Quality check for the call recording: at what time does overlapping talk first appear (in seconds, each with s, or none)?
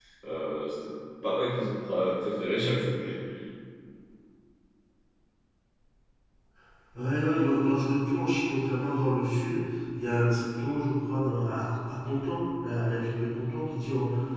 none